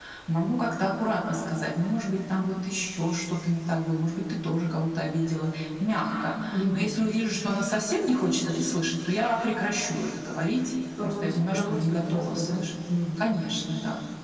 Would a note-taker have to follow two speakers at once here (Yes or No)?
Yes